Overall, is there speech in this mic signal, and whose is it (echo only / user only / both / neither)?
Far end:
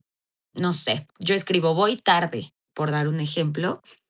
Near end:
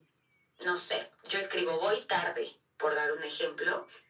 echo only